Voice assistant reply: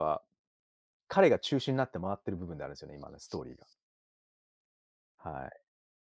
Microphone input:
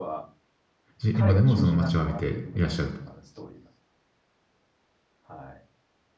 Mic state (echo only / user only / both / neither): both